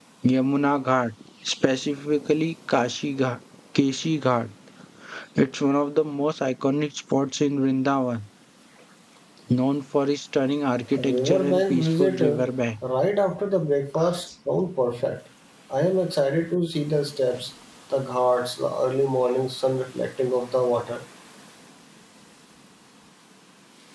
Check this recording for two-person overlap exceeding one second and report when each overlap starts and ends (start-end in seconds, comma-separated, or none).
11.0-12.4